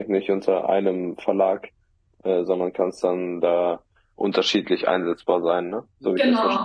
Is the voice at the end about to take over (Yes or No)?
Yes